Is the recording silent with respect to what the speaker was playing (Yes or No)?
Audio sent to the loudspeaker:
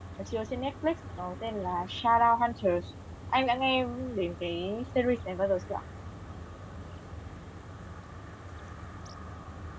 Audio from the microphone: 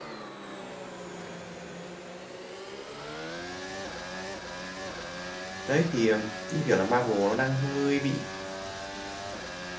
Yes